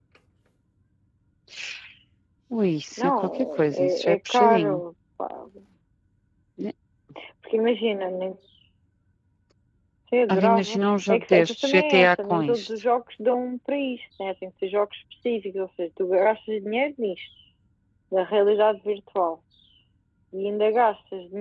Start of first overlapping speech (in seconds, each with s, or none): 3.0 s